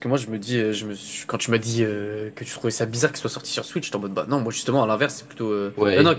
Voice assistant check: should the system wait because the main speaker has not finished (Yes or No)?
No